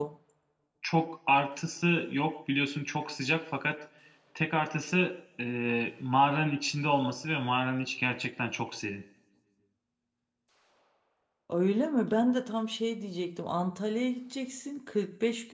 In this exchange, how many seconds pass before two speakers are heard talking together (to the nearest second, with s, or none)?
none